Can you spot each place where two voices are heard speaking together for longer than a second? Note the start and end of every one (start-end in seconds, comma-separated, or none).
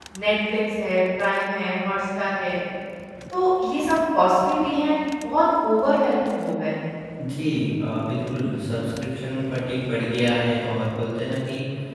none